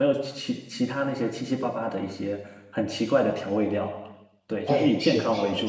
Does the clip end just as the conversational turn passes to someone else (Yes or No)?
Yes